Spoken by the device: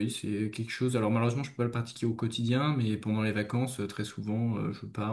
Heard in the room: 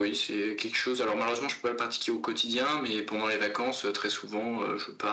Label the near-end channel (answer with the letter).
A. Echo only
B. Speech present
A